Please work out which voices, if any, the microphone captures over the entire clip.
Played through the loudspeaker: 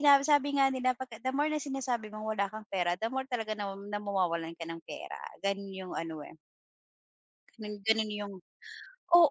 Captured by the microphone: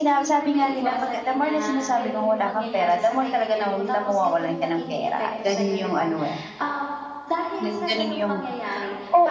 both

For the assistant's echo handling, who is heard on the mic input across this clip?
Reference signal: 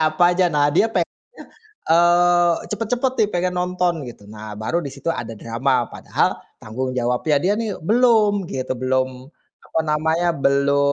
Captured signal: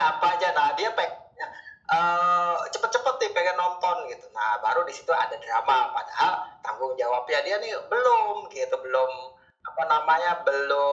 echo only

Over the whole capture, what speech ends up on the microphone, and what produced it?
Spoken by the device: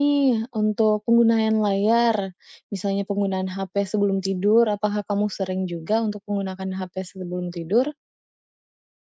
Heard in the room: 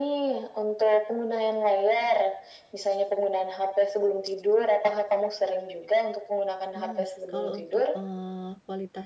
both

